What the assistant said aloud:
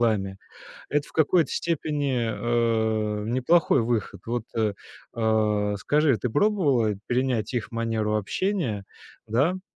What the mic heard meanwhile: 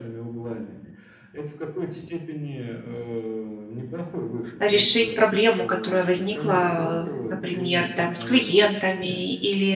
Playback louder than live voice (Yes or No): No